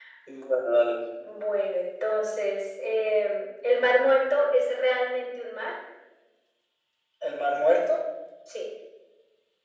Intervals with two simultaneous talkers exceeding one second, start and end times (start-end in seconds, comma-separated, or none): none